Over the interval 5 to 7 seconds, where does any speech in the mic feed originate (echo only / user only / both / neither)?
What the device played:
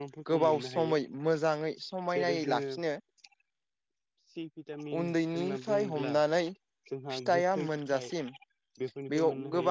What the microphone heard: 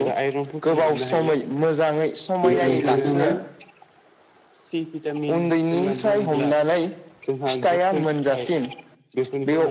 echo only